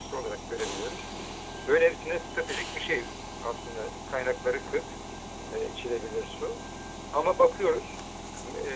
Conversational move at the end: listening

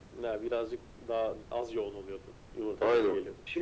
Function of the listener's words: taking over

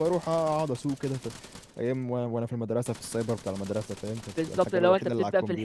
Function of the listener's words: taking over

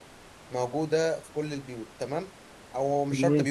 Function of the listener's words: listening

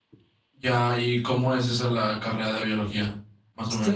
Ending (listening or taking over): taking over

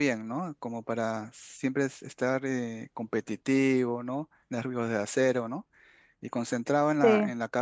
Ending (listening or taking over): listening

